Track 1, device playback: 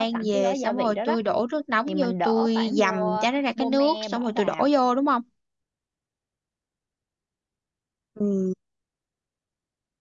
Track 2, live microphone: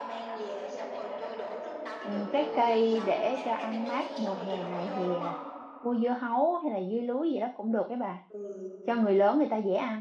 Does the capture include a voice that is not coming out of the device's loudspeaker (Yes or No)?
Yes